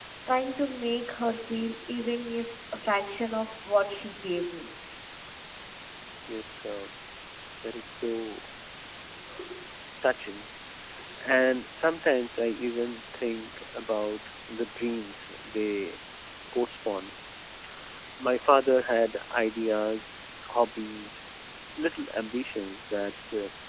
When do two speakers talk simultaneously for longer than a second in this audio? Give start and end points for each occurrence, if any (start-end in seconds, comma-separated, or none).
none